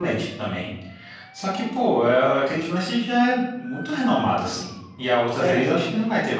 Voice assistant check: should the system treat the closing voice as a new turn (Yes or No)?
No